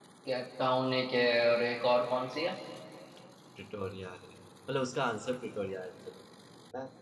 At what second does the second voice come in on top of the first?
none

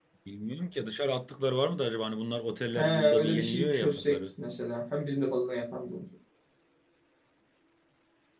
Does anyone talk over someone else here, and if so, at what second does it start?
2.8 s

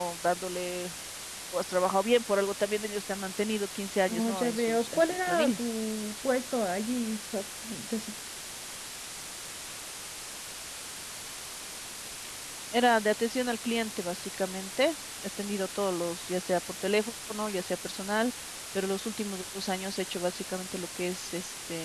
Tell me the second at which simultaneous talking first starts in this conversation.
4.1 s

